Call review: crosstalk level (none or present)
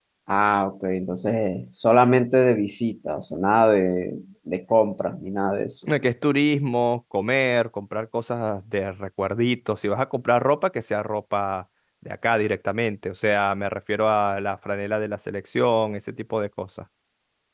none